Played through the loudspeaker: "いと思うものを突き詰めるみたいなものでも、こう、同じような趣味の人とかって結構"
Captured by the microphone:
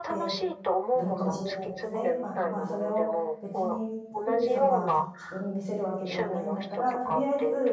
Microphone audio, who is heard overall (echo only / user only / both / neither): both